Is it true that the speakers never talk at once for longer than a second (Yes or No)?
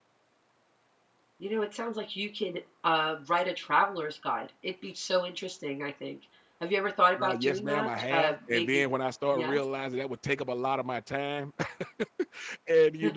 No